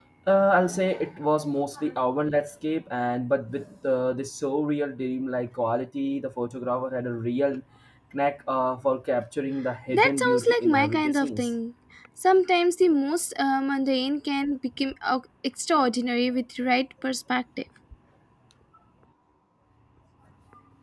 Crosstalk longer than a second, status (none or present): present